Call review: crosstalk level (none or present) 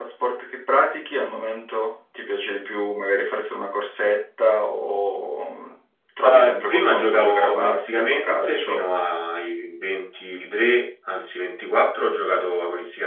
present